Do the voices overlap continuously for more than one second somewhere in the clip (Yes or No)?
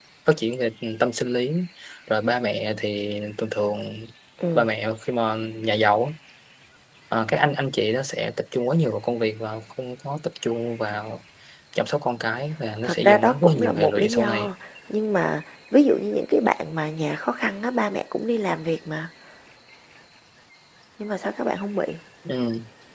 Yes